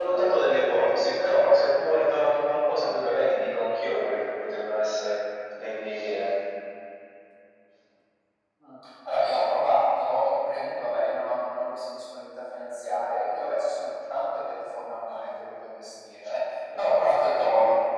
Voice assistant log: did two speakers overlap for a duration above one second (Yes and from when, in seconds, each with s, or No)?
No